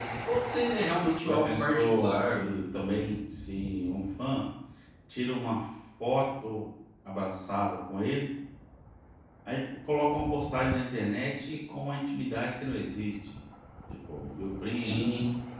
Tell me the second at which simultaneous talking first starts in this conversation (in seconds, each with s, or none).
1.2 s